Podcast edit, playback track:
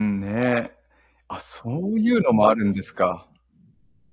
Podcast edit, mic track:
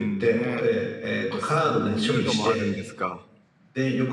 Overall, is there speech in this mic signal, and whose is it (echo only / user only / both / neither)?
both